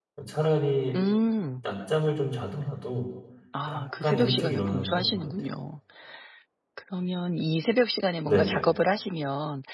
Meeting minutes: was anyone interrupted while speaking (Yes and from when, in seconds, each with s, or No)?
Yes, from 3.7 s